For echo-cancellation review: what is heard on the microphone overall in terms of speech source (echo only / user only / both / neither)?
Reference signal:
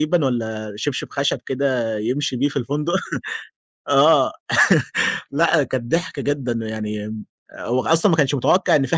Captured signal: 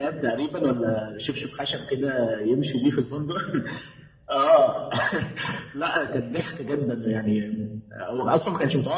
echo only